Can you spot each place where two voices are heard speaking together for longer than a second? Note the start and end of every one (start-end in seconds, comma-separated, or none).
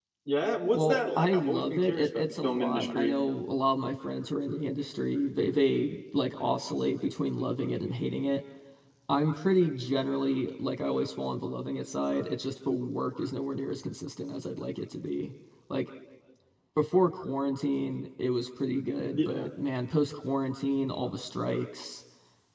0.7-3.2